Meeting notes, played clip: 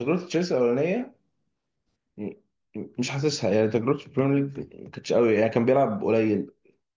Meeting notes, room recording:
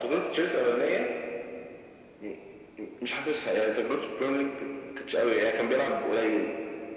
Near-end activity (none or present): none